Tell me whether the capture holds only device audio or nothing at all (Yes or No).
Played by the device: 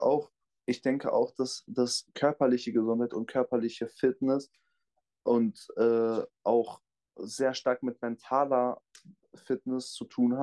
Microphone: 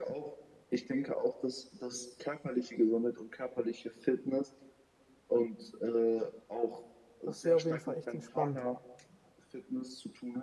No